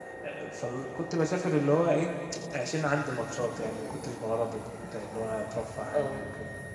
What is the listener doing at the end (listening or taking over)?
taking over